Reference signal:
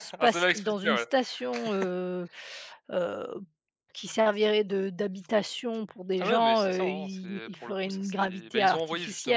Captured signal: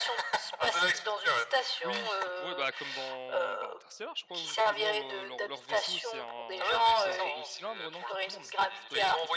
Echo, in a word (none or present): present